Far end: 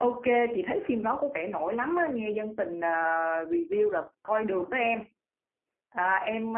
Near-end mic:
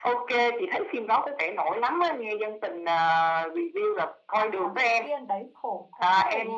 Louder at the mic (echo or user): echo